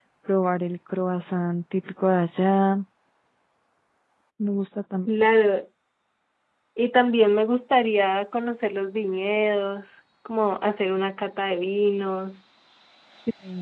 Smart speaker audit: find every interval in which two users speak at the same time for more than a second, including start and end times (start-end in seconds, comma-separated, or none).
none